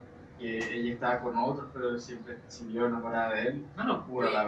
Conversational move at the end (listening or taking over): taking over